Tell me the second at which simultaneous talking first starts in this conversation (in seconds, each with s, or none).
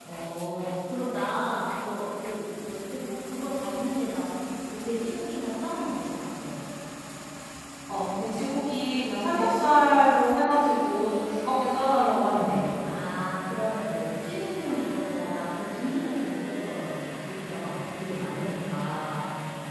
none